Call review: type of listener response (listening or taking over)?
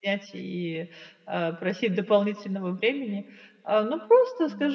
listening